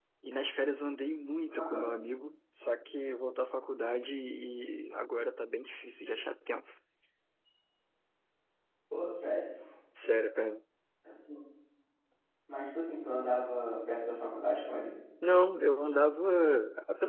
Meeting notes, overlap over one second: none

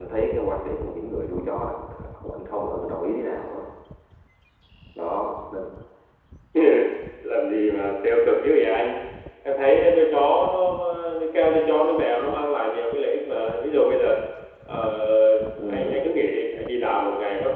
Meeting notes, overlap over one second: none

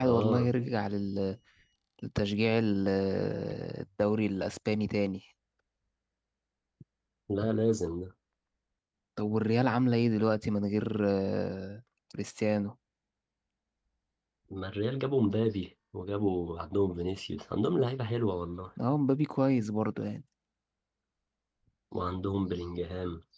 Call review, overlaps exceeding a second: none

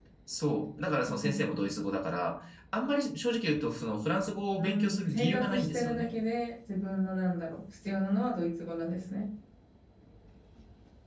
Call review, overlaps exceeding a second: present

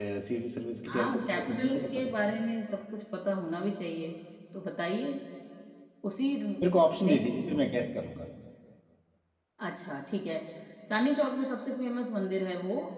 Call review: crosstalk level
present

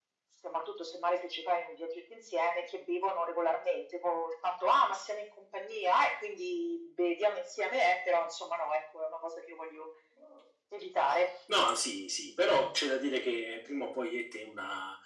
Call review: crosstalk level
none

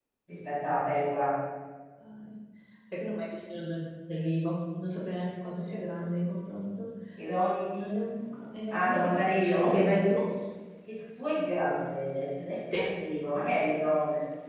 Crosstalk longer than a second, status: none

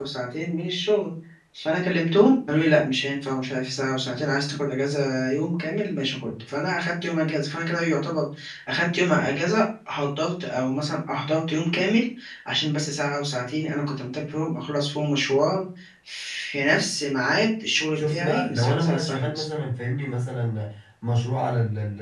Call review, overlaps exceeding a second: present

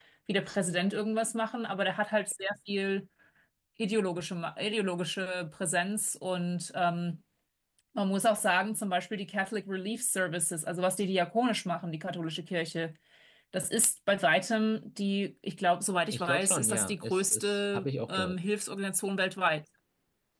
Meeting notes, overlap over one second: present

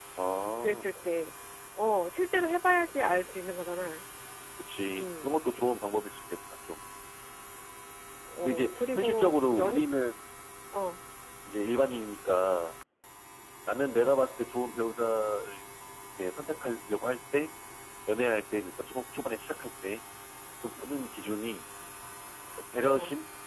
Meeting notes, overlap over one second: present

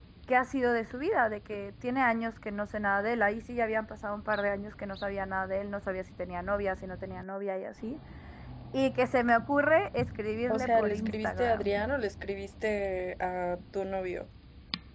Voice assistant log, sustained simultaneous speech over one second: present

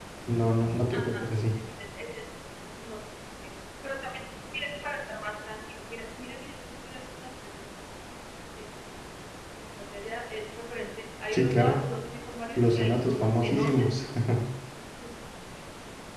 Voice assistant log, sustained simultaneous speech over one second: present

